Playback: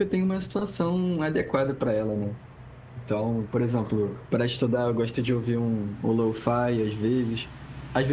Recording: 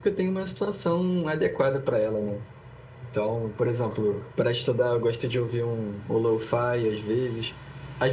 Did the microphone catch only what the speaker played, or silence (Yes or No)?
Yes